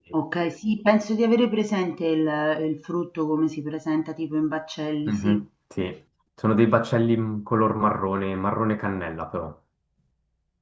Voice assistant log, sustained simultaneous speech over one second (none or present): none